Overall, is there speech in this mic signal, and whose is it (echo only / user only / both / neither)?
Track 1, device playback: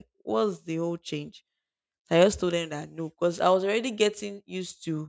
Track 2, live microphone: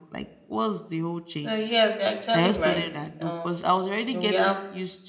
both